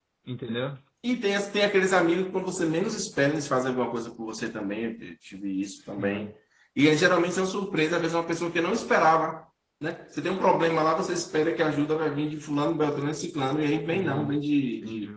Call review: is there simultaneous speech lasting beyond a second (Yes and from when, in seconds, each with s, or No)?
No